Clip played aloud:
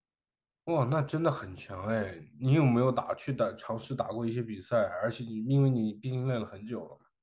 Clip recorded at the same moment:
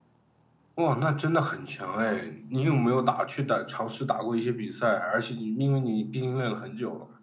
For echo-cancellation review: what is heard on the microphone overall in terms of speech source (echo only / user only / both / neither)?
echo only